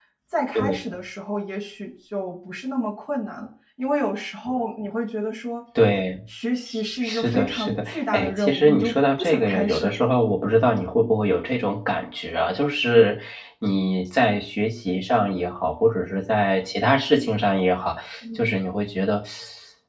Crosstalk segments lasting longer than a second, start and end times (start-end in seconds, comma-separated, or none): 7.0-10.0